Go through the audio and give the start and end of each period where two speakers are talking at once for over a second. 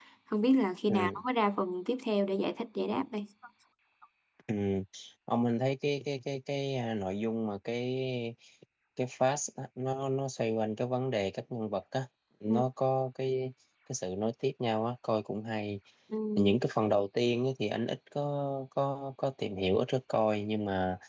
none

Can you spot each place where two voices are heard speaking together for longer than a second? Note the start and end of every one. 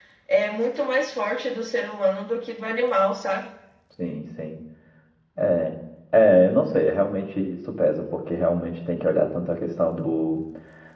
none

